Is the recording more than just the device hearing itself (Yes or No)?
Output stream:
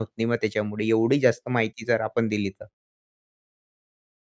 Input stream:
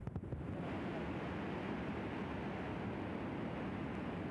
No